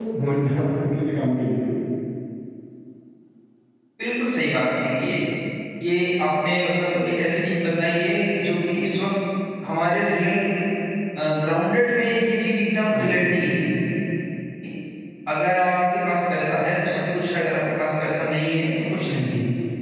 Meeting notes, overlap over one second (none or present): none